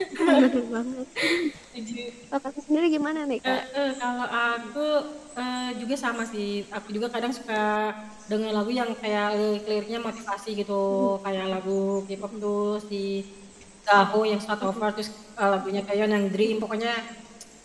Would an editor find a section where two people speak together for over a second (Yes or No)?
No